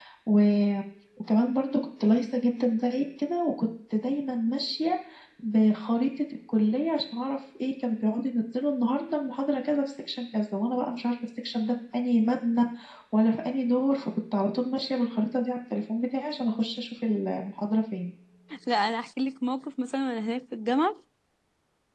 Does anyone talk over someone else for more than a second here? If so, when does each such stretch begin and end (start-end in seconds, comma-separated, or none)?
none